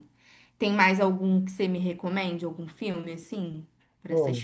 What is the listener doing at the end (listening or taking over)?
taking over